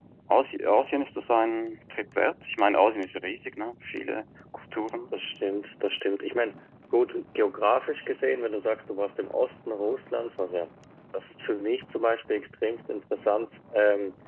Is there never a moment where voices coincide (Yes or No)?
Yes